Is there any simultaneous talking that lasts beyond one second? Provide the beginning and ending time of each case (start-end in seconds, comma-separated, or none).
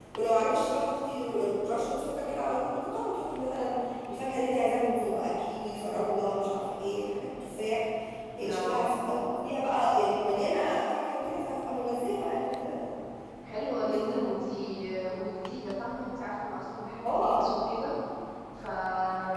none